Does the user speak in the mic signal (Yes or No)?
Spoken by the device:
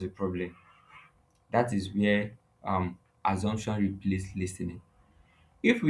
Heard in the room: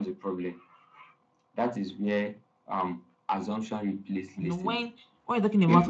Yes